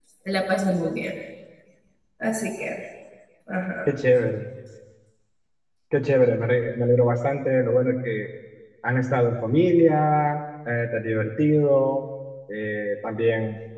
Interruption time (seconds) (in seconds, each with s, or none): none